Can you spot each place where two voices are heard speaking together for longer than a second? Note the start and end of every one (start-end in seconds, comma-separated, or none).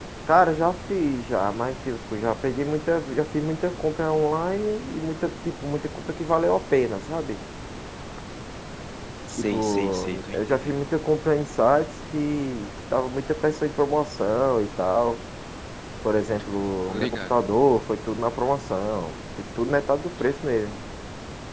9.4-10.8